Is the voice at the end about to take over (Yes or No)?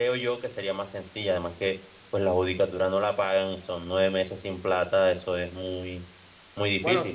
Yes